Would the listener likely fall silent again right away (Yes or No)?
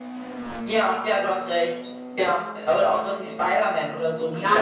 No